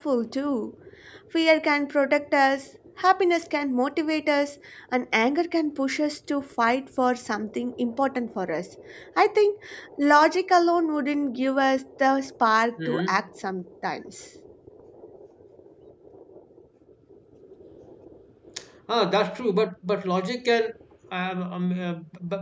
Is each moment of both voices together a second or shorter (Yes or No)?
Yes